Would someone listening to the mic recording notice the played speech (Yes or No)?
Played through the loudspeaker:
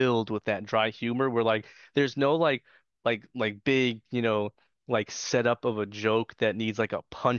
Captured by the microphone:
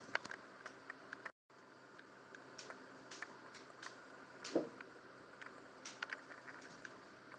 No